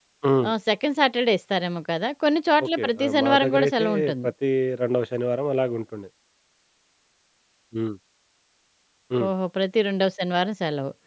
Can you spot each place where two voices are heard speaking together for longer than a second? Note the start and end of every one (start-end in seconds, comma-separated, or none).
2.6-4.3